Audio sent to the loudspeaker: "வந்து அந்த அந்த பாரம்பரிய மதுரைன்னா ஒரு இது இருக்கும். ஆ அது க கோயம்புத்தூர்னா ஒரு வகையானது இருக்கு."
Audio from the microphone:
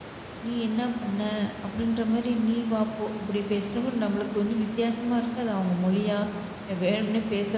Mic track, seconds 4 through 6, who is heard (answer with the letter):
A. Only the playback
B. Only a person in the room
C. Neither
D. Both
B